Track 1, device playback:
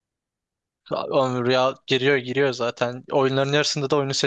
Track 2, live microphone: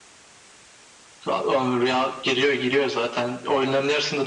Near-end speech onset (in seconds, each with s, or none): none